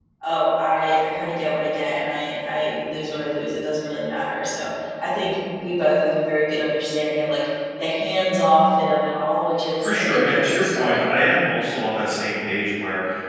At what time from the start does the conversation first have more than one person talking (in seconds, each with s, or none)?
9.8 s